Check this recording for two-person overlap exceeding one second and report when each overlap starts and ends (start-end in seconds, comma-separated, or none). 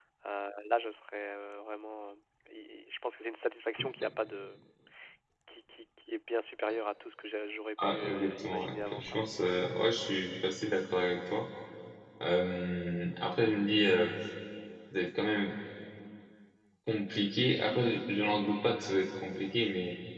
7.8-9.2